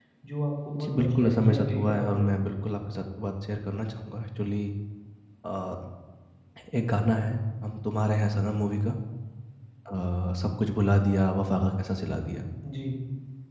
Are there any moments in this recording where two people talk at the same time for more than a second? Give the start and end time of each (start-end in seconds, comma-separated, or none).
0.8-2.3